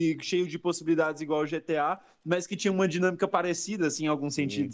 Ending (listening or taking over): taking over